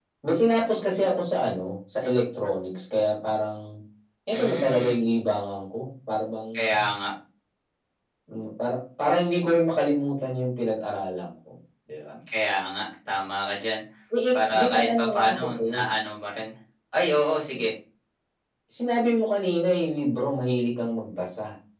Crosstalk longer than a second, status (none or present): present